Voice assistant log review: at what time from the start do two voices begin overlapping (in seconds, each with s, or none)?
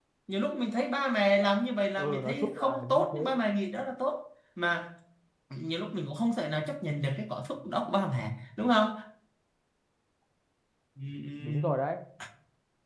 2.0 s